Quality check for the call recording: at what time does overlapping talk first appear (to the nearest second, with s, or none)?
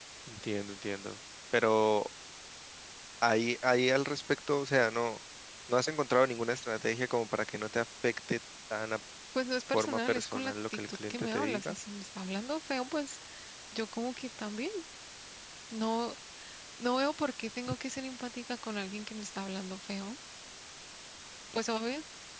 10 s